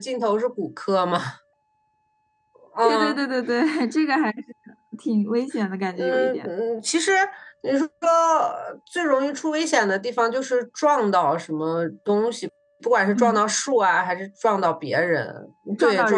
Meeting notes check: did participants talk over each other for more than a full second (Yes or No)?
No